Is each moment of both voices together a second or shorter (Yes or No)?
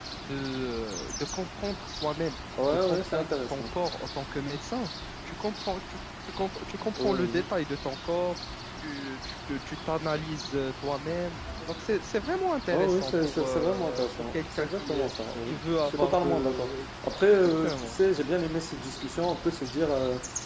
No